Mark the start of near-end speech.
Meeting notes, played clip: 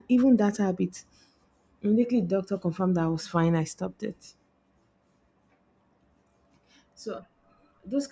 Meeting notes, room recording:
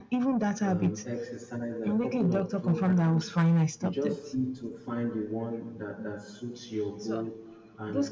0.6 s

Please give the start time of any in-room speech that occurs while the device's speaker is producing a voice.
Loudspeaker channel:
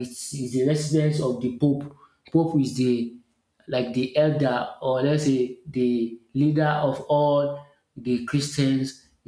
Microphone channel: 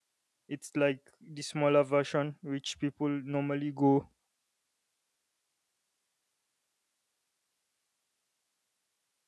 0.5 s

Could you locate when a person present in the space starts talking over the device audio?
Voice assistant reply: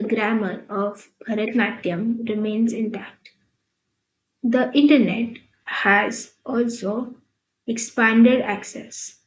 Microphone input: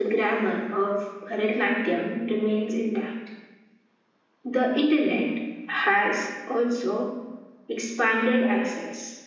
none

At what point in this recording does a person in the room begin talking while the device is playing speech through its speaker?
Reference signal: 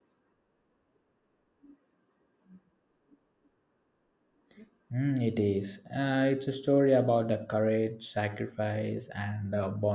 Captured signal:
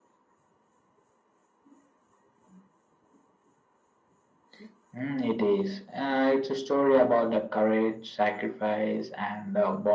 none

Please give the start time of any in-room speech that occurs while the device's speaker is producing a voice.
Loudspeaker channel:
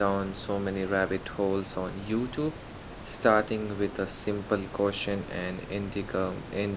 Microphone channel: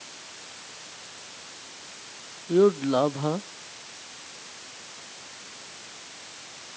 2.5 s

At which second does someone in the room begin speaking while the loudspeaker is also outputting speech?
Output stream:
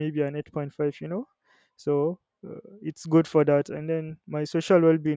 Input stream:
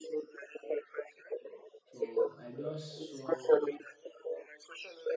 1.8 s

